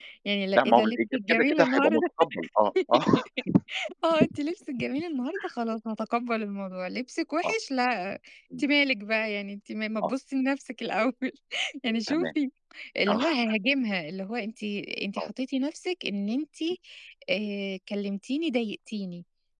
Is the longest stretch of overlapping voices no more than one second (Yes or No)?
No